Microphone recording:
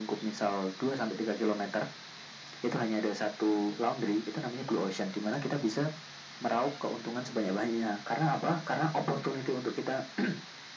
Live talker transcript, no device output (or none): none